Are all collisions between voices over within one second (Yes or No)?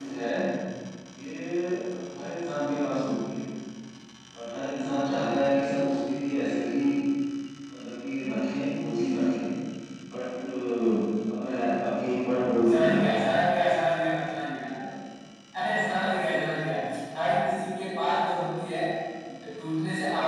Yes